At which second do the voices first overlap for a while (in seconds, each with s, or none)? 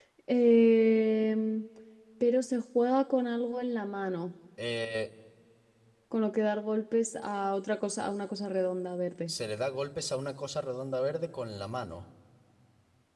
none